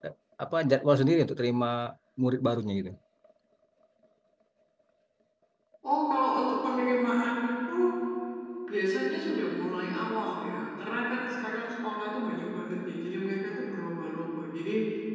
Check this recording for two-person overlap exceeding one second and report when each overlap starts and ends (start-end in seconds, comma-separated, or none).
none